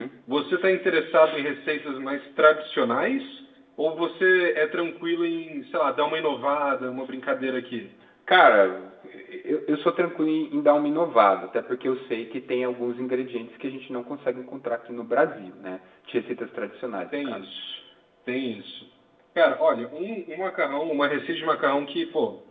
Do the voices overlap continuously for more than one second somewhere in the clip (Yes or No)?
No